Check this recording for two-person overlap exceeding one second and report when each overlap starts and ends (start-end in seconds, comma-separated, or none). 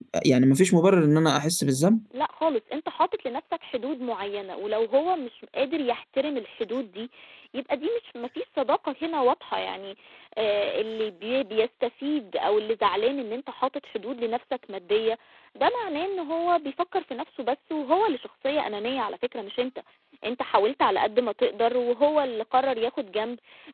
none